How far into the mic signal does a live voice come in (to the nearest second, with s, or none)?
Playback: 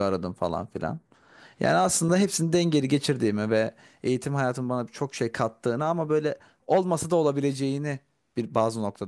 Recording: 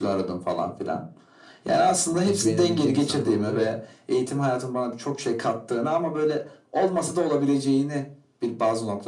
2 s